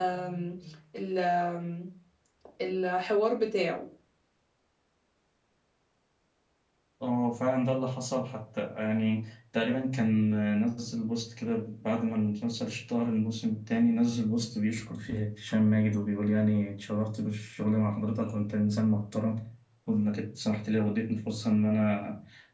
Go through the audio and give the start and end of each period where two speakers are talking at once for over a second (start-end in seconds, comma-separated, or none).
none